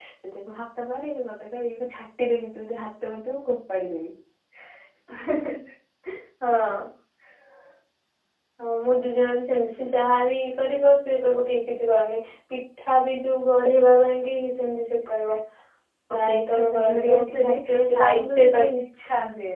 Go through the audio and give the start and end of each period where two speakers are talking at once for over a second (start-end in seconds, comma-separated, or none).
16.1-18.4